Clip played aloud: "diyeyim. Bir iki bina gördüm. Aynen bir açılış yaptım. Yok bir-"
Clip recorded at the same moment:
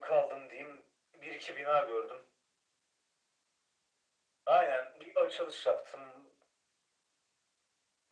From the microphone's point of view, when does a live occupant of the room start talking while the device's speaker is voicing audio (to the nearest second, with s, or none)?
none